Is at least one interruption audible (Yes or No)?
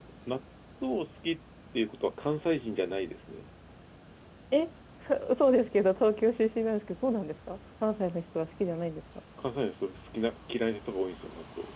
No